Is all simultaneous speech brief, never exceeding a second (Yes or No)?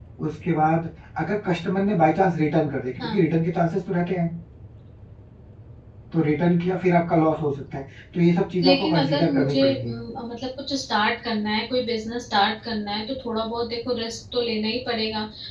No